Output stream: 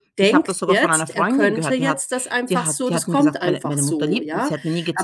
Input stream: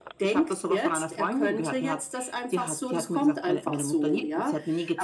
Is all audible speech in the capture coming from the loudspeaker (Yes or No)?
Yes